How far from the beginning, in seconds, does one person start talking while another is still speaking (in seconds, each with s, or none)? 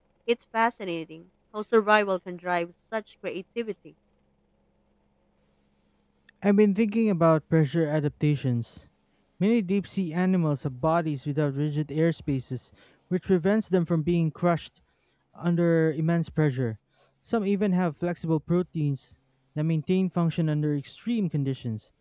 none